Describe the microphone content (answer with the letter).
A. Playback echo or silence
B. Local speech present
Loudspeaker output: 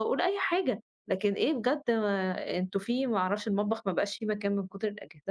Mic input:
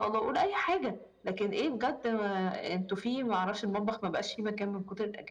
A